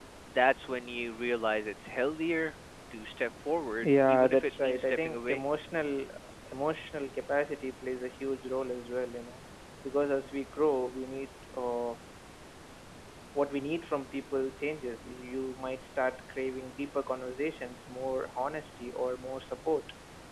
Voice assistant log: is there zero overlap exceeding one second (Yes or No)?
No